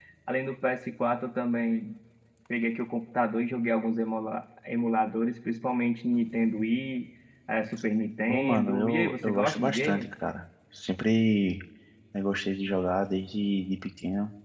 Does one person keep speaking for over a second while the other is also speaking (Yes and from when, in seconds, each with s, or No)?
Yes, from 8.3 s